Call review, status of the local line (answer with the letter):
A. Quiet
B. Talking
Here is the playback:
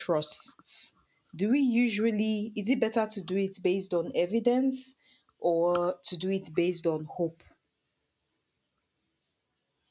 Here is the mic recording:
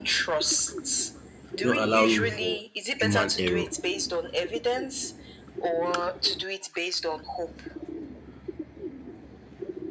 B